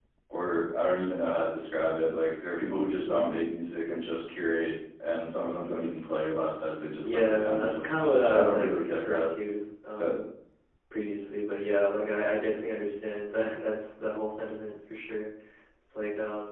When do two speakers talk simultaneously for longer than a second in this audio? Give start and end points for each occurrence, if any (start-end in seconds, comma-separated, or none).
7.0-9.3